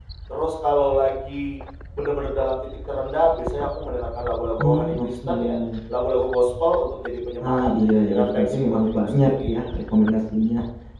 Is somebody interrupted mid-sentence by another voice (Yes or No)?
Yes